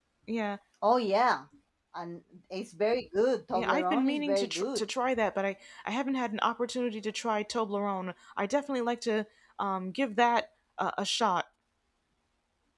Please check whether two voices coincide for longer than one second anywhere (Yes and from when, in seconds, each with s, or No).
Yes, from 3.5 s